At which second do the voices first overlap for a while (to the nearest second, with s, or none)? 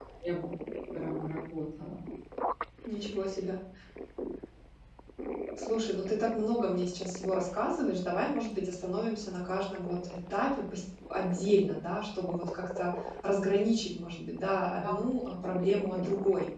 none